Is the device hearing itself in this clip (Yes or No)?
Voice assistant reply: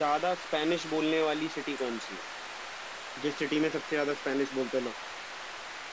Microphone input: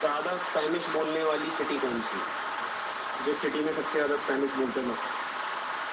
Yes